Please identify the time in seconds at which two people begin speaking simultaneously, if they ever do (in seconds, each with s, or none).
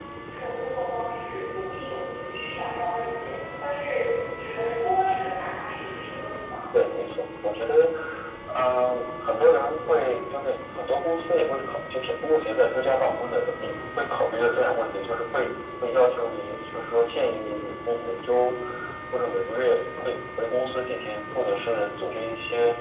none